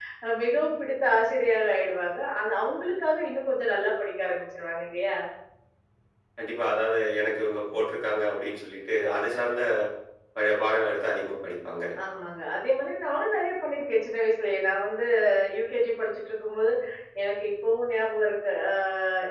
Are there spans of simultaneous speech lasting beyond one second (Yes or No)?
No